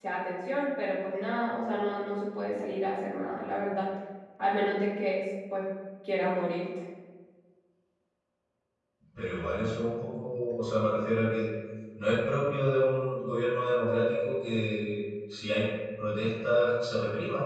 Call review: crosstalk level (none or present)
none